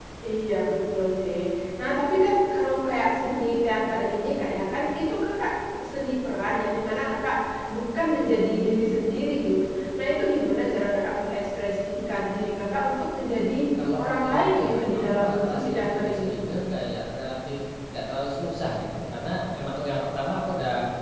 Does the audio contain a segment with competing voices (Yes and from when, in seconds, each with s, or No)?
Yes, from 13.8 s